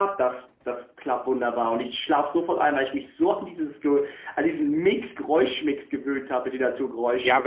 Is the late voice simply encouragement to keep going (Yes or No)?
No